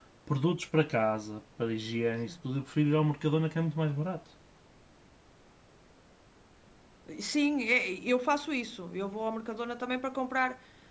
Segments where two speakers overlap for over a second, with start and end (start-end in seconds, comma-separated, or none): none